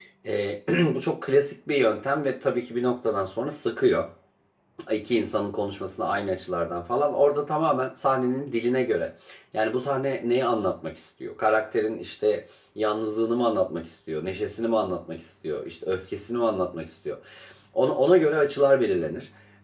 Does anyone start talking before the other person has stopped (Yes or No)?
No